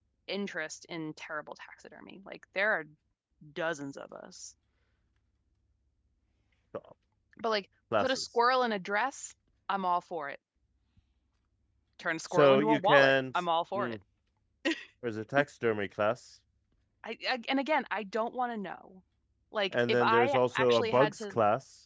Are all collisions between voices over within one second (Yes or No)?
No